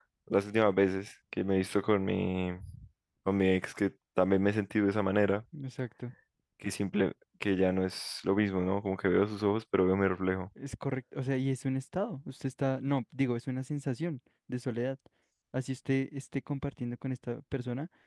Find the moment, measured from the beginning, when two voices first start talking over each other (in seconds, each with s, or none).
none